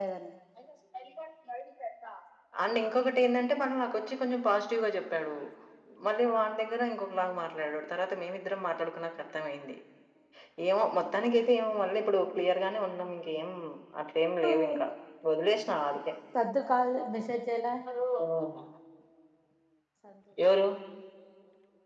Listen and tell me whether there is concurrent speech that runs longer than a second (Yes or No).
No